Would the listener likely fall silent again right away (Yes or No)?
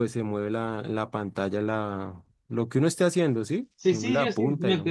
No